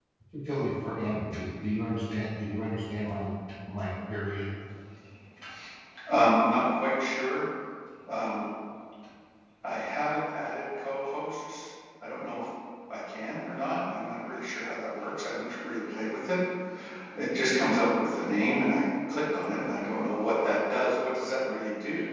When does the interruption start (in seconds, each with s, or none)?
none